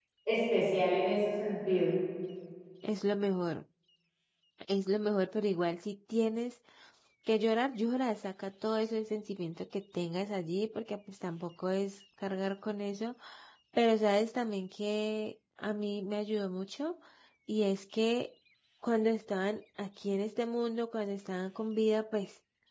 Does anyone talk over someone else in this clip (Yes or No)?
No